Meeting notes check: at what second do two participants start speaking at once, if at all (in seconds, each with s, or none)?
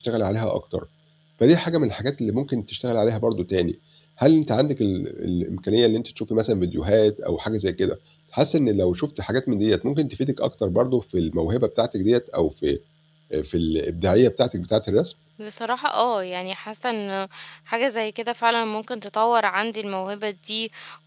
none